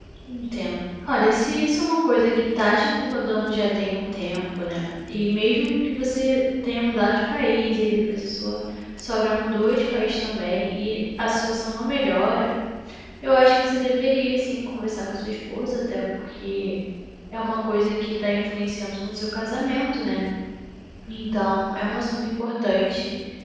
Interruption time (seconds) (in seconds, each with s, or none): none